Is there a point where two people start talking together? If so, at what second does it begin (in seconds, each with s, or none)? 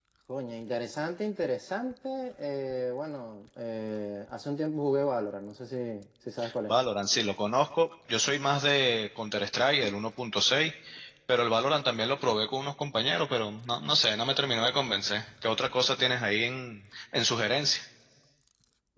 none